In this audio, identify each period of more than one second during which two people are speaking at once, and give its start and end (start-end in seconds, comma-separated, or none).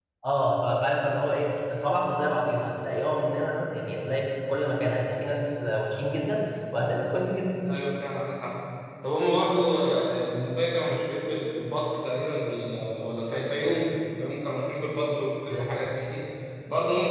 none